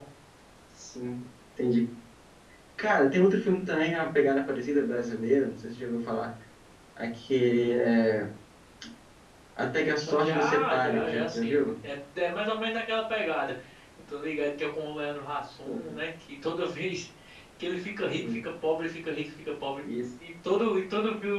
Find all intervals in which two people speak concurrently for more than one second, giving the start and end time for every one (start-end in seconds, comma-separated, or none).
9.8-11.6